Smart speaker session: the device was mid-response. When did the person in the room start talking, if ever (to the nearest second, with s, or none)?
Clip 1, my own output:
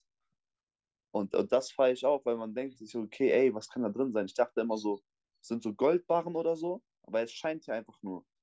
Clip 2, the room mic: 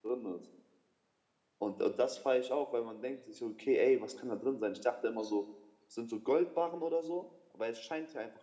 none